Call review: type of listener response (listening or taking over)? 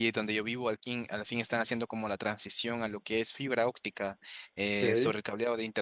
listening